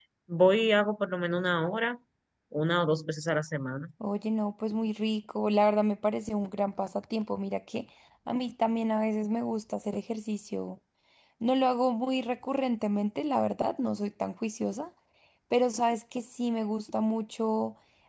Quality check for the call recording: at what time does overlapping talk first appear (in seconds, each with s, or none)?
none